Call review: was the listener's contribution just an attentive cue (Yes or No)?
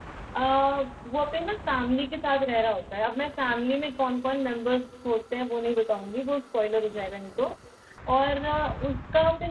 Yes